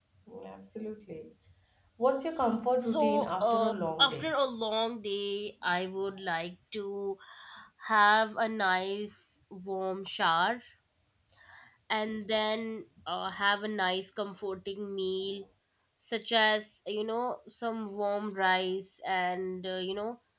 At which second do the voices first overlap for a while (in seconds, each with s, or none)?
2.8 s